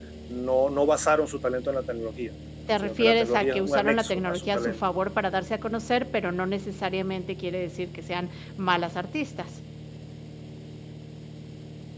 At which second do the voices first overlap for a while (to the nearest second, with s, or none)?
3 s